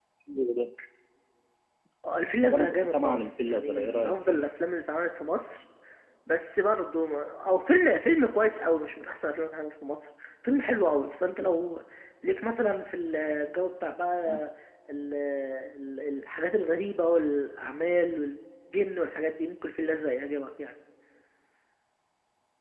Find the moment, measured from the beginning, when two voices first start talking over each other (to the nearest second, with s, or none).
2 s